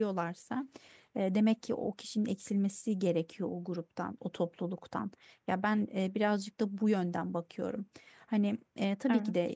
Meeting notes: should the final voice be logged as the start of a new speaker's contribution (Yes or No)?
No